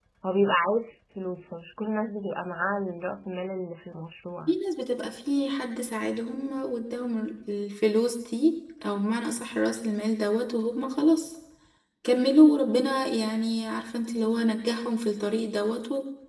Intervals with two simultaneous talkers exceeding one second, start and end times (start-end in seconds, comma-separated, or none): none